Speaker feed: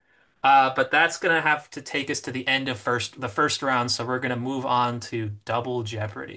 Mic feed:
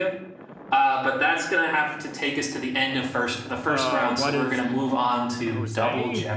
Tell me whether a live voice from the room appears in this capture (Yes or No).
Yes